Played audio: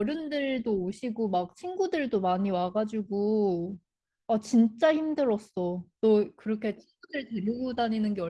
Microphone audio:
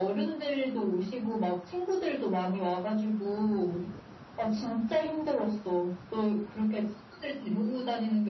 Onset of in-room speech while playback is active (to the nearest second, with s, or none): none